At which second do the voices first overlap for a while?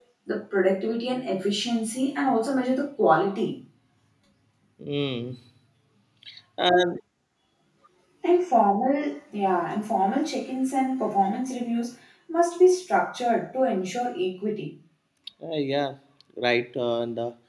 none

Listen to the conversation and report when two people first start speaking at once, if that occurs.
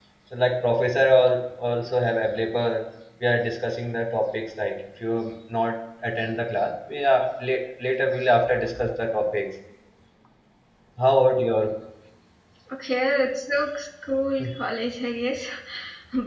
none

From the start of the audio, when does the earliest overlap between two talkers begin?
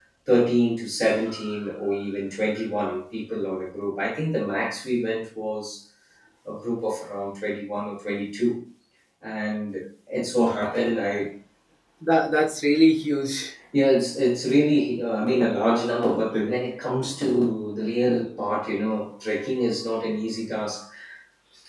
none

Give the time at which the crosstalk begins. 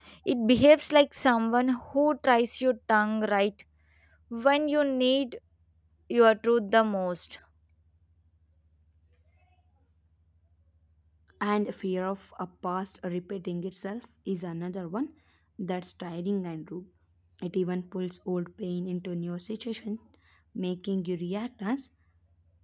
none

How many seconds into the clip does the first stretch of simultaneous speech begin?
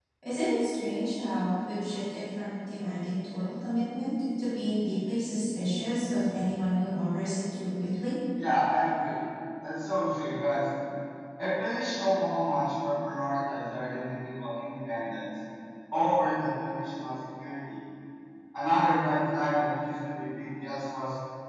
none

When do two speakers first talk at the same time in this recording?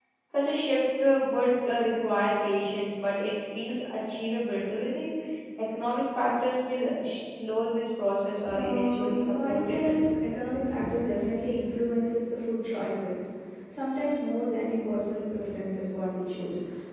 8 s

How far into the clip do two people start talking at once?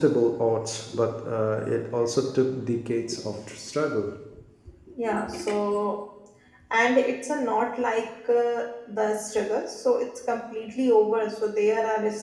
none

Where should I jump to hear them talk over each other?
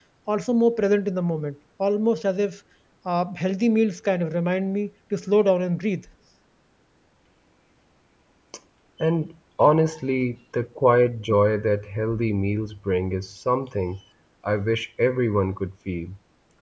none

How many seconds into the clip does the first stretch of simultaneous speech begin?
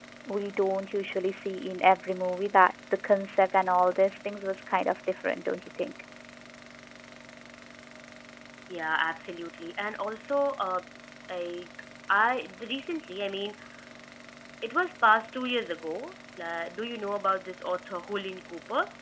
none

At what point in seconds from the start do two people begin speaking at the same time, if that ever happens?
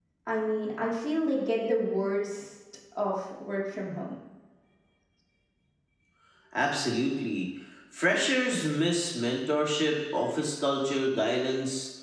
none

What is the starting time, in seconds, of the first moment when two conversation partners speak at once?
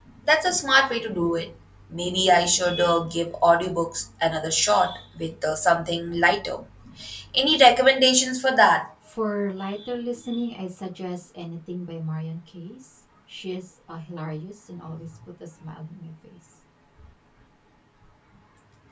none

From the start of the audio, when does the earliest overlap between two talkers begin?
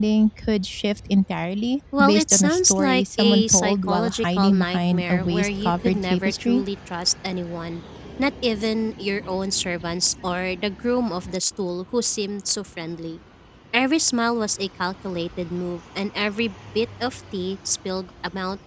2 s

